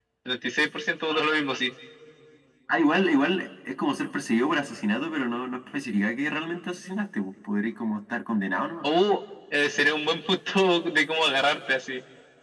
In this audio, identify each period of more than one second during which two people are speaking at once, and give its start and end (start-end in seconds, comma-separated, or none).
none